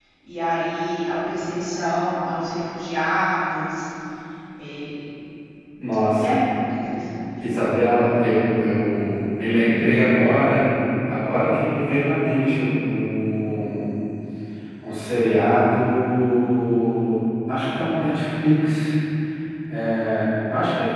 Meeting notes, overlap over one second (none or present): none